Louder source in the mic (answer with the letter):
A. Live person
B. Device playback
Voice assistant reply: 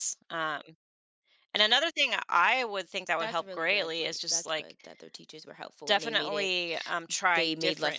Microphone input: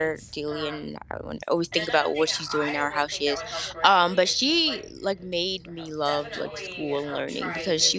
A